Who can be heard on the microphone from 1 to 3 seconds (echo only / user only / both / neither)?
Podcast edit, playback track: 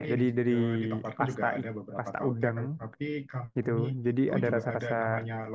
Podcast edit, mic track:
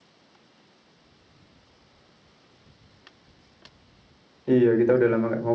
neither